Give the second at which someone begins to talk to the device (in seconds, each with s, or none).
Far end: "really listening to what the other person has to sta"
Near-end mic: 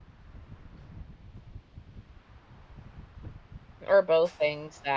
3.9 s